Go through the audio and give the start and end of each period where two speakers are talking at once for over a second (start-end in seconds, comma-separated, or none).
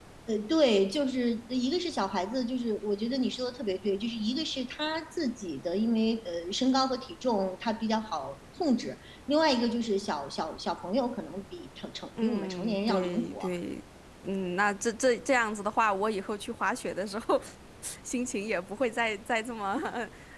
12.2-13.4